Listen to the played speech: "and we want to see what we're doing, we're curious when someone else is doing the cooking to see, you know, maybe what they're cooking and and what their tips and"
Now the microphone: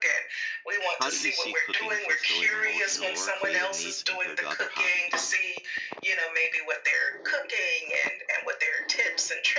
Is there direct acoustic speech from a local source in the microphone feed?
Yes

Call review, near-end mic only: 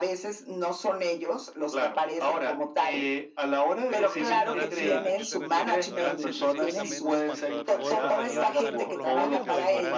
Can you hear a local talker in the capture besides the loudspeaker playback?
Yes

